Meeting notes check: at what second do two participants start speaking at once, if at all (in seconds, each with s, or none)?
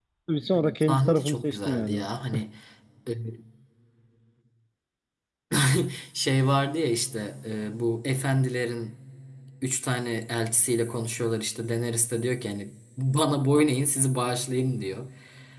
0.8 s